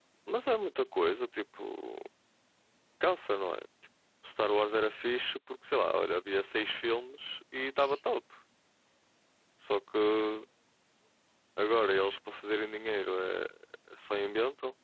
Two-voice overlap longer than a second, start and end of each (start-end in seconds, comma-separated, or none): none